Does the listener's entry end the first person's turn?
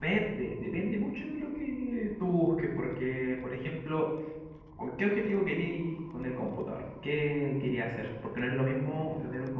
No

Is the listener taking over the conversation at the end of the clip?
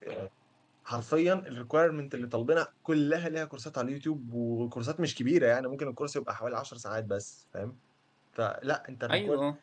No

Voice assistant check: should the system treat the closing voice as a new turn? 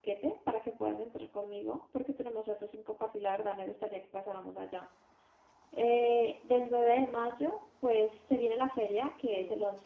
No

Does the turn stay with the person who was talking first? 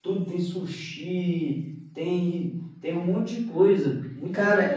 No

